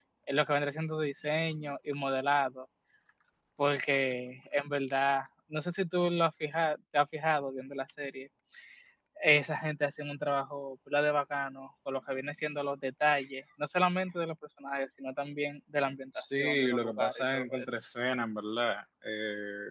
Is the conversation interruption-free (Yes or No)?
No